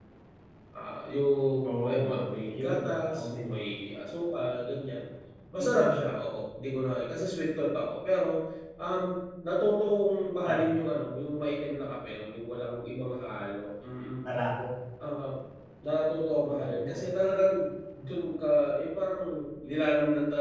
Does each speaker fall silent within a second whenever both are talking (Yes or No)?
No